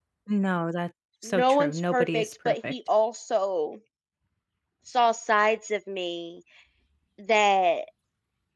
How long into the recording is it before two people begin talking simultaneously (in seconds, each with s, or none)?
1.2 s